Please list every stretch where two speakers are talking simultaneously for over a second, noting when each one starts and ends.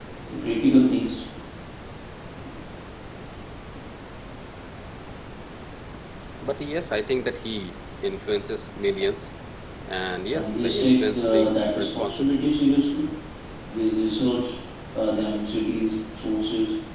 10.3-12.5

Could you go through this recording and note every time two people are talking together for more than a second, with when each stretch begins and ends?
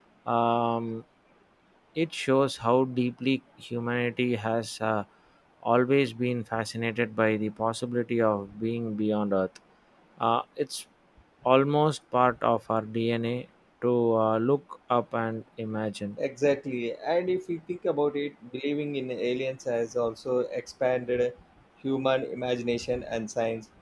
none

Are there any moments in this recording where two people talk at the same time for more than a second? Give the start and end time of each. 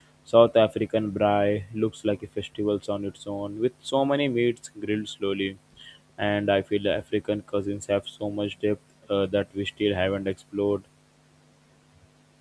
none

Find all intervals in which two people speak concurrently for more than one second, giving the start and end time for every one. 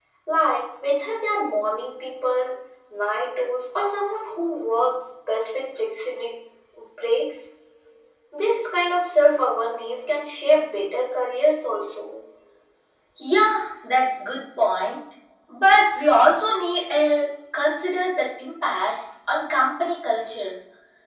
none

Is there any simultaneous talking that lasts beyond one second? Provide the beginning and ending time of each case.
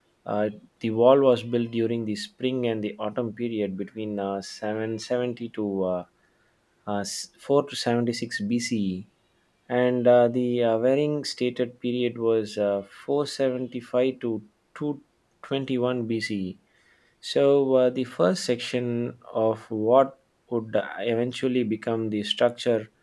none

